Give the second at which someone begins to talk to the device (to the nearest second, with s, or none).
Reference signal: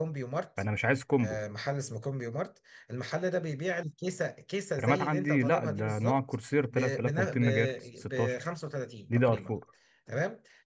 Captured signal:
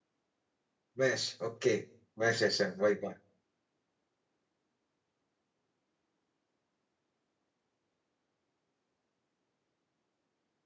1 s